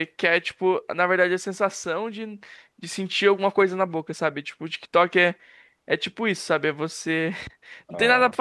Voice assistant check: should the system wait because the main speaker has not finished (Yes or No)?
Yes